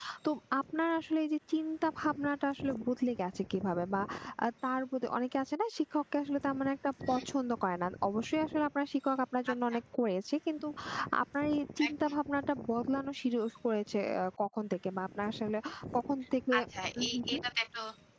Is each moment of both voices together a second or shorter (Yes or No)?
Yes